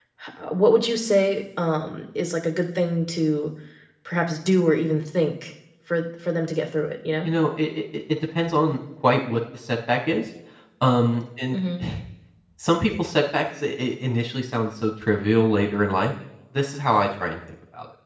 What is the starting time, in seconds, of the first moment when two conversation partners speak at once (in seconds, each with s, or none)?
none